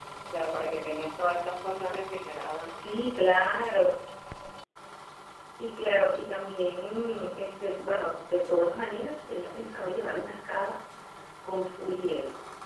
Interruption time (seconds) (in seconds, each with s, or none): none